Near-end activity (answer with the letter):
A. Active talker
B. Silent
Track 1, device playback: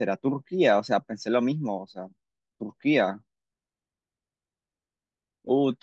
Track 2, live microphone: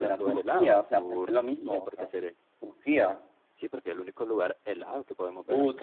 A